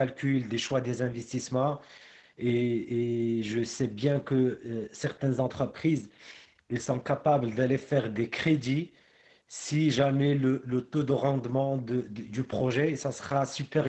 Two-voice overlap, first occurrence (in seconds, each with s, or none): none